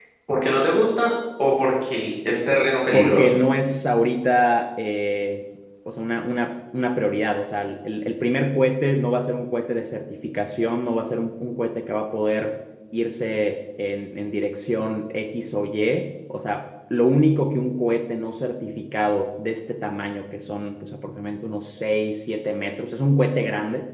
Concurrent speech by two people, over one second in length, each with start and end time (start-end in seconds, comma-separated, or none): none